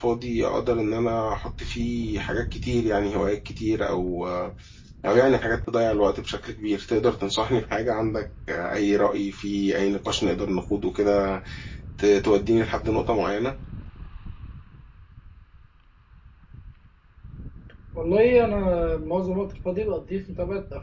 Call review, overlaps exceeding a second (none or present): none